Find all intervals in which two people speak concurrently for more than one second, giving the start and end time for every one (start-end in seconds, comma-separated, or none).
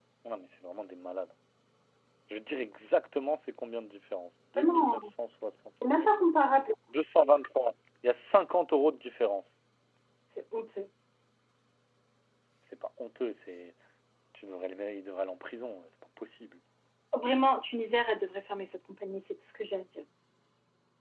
none